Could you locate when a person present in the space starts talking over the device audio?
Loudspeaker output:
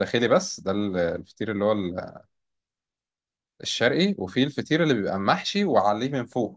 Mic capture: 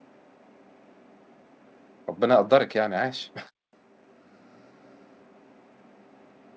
2.1 s

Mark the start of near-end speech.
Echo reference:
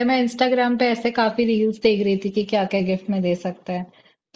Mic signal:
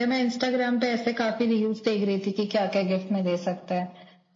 none

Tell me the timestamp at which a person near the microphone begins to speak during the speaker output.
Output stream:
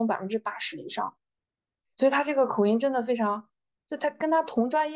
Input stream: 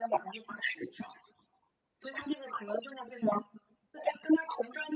none

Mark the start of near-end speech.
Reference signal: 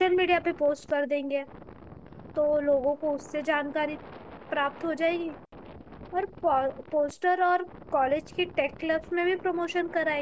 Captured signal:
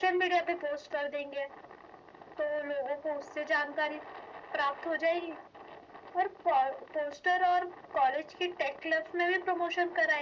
none

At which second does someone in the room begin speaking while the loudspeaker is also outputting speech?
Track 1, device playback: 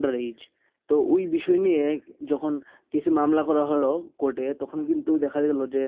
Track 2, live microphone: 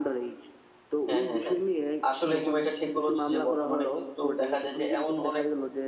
1.1 s

